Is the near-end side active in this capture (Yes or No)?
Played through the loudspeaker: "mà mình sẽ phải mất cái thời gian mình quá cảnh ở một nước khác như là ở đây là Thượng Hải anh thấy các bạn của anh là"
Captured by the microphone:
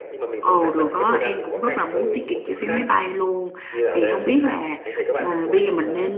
Yes